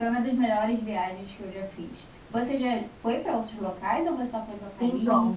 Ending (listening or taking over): taking over